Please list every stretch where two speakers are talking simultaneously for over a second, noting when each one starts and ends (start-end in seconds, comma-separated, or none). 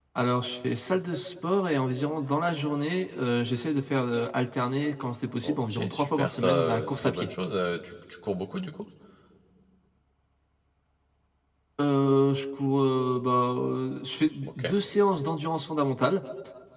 5.4-7.3